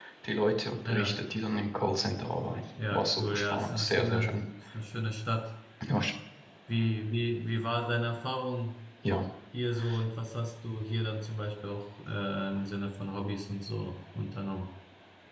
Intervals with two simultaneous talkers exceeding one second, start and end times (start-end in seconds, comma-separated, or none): 2.9-4.3